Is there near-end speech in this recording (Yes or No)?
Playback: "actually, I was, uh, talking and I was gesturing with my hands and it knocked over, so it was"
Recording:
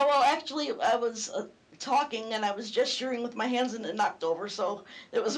No